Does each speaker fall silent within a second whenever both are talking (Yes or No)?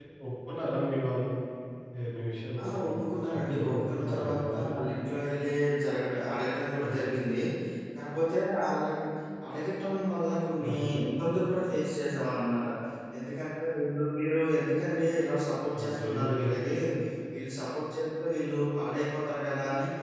No